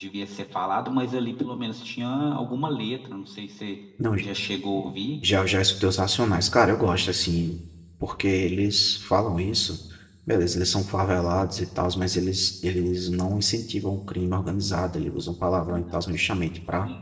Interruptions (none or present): none